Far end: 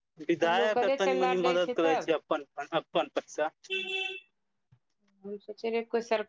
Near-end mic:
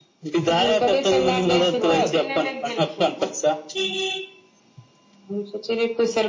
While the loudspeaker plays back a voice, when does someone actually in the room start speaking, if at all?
2 s

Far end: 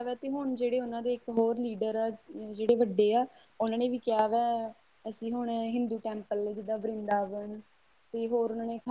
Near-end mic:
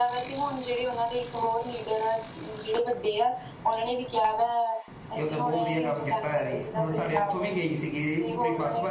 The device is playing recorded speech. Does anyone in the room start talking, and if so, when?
5 s

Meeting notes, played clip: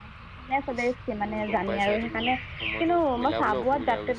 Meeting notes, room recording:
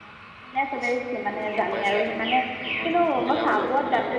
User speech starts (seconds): none

